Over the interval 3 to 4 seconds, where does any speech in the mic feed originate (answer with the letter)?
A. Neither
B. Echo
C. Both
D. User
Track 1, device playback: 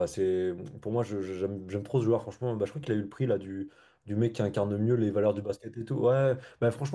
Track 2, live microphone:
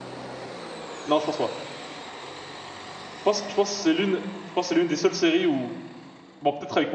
D